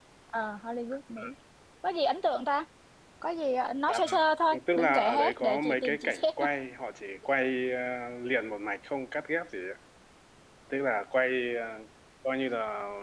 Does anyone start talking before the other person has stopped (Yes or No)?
Yes